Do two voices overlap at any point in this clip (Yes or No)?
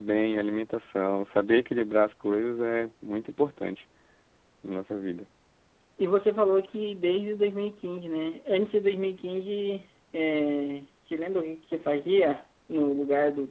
No